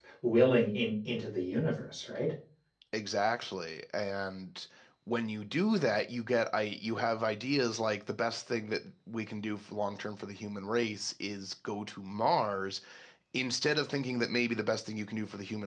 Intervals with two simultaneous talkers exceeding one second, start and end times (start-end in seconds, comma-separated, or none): none